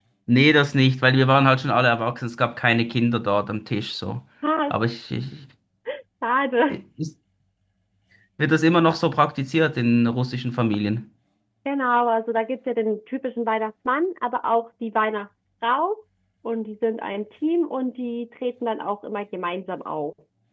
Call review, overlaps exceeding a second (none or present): none